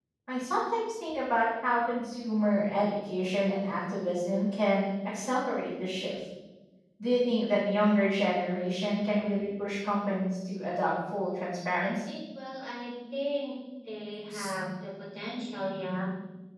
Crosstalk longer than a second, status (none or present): none